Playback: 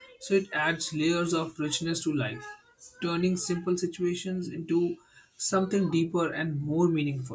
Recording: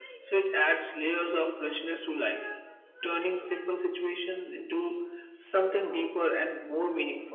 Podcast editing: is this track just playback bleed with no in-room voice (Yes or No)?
Yes